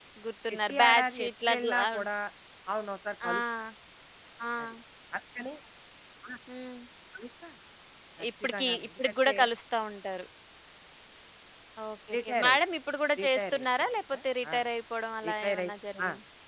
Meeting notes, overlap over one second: present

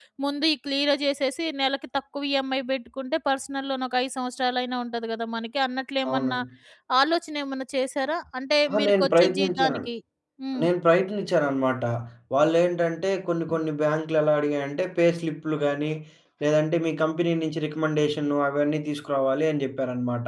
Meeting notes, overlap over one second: present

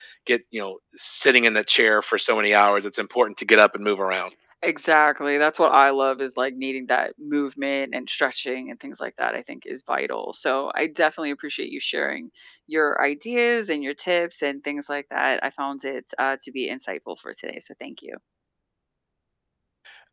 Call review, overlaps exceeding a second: none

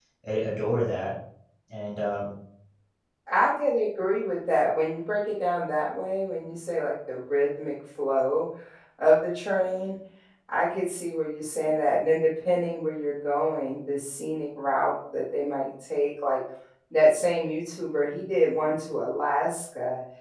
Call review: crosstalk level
none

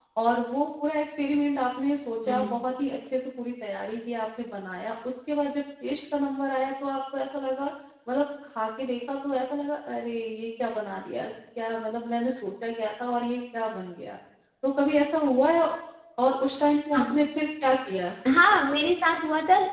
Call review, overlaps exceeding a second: none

